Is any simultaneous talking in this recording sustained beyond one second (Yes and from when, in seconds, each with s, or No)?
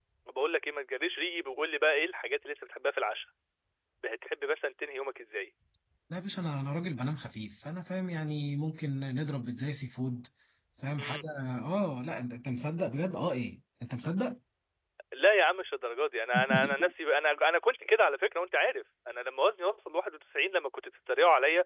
No